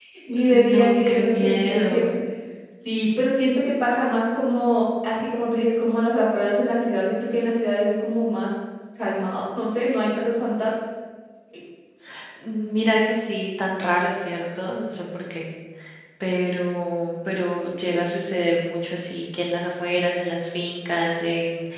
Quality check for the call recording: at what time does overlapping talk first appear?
0.5 s

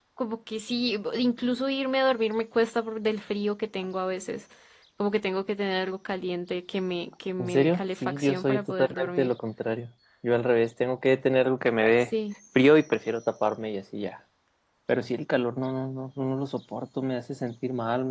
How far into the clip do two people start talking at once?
7.4 s

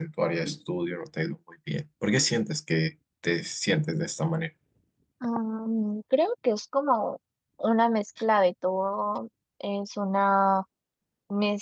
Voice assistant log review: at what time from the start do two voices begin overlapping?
none

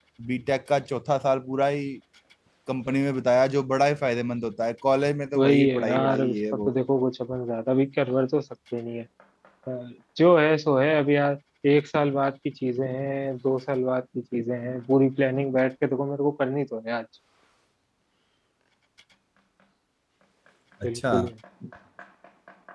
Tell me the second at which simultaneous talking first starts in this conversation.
5.4 s

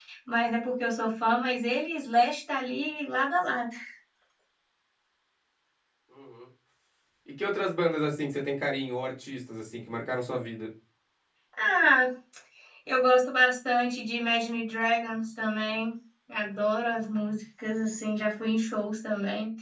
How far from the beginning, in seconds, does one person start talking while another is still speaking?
none

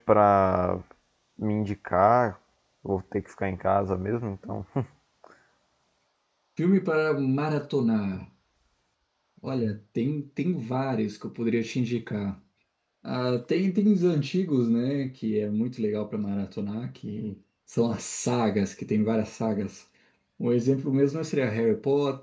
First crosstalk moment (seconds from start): none

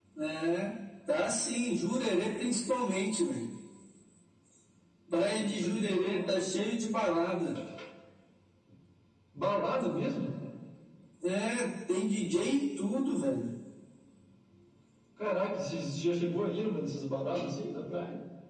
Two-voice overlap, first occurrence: 5.1 s

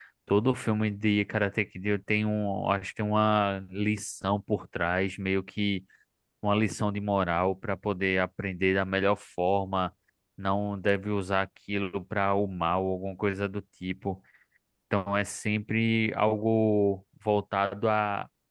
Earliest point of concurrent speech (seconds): none

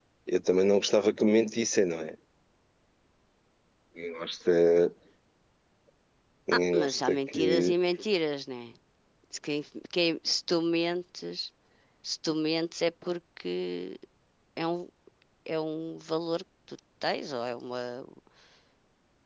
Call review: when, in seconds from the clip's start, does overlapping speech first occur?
6.5 s

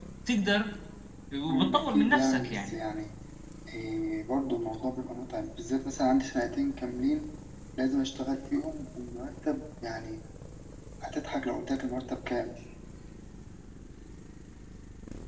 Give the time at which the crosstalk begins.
1.5 s

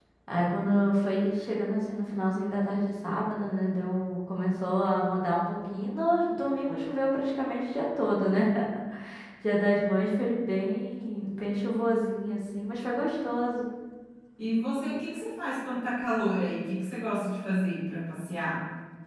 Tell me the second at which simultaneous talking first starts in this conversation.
none

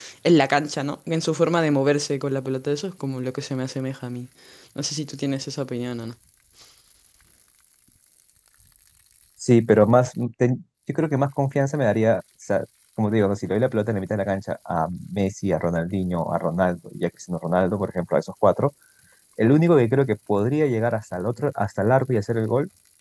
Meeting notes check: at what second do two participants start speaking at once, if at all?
none

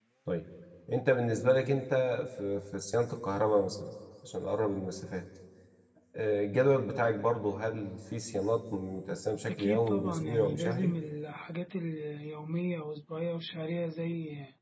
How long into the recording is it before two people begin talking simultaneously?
9.5 s

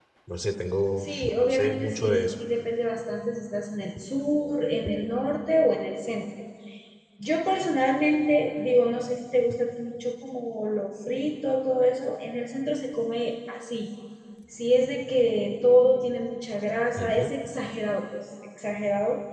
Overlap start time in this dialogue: 1.0 s

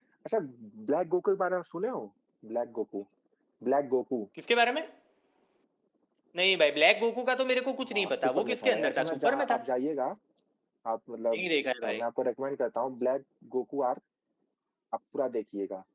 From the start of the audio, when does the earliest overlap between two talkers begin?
7.8 s

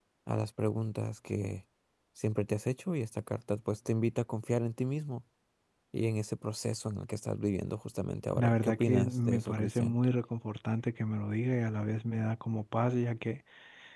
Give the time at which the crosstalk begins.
8.3 s

